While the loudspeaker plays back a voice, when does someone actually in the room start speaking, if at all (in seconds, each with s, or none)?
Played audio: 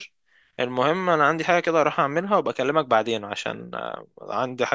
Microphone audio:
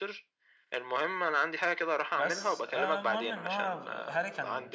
2.1 s